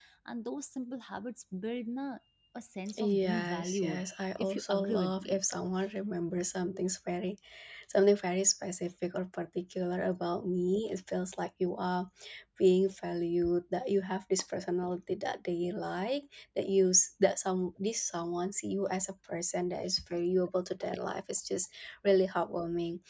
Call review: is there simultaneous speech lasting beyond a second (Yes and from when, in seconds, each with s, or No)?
Yes, from 3.0 s